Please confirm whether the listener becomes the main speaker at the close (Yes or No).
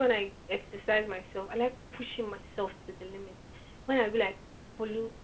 No